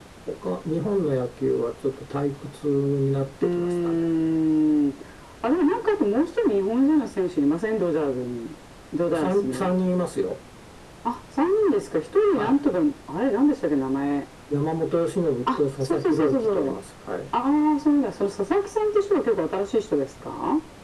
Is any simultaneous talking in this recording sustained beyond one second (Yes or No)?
Yes